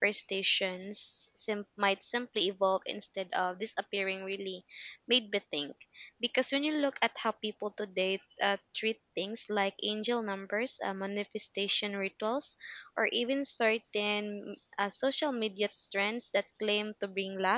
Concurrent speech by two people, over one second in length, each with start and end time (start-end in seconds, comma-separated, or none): none